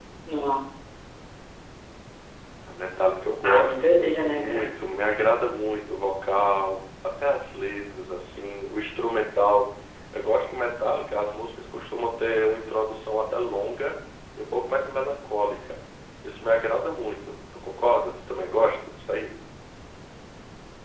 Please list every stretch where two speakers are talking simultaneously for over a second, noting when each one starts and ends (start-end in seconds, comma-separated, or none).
3.4-4.7